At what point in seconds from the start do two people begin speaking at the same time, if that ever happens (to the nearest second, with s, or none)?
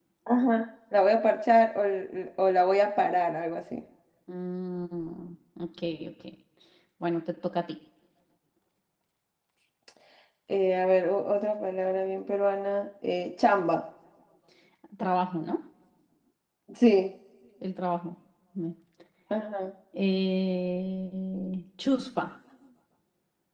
none